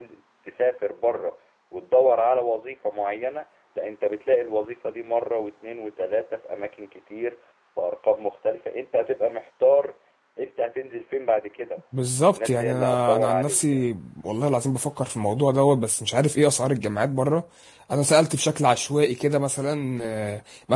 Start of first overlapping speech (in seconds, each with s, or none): 12.3 s